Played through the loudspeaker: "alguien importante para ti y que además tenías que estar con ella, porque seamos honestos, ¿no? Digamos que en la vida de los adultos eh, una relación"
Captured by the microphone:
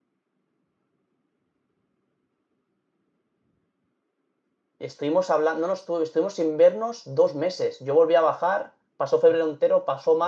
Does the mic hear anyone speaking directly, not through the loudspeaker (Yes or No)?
Yes